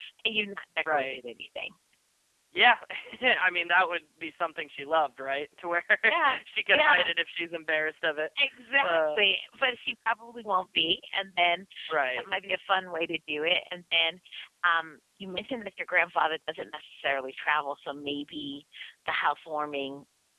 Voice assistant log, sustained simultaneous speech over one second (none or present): none